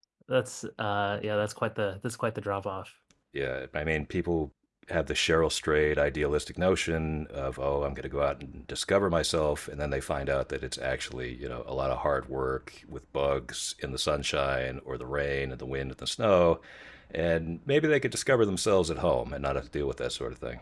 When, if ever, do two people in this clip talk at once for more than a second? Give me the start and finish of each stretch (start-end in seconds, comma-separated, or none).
none